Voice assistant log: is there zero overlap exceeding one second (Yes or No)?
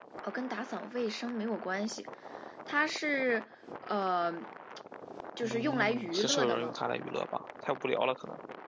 No